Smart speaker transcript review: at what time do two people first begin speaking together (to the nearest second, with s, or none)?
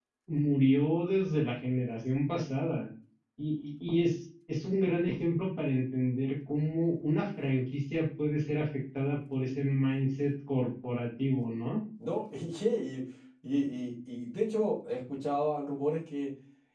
none